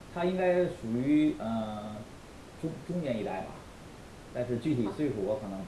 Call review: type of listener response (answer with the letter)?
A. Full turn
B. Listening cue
B